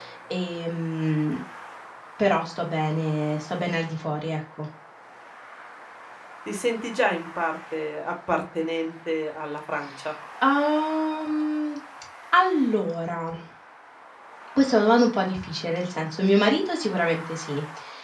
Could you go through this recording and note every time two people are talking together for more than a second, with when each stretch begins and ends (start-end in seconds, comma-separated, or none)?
none